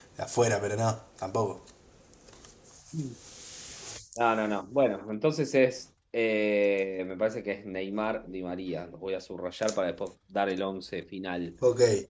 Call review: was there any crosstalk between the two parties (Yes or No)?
No